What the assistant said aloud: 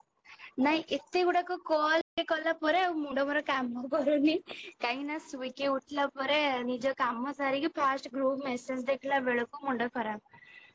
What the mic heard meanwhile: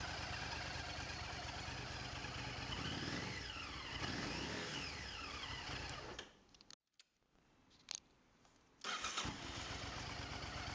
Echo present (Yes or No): No